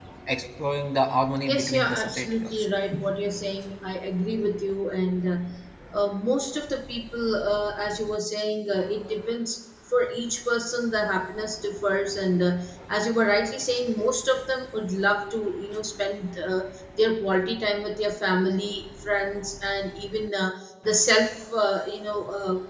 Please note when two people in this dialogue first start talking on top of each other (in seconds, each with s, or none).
1.5 s